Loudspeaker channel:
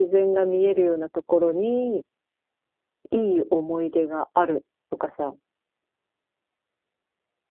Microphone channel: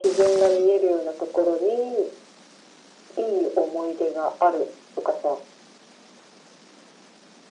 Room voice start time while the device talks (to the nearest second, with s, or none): none